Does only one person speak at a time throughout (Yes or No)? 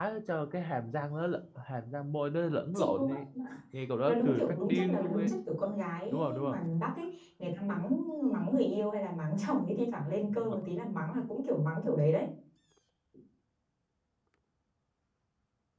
No